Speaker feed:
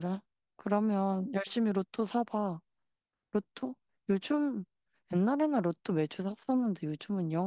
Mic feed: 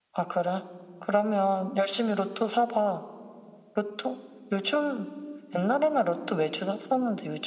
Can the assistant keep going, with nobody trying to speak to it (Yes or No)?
Yes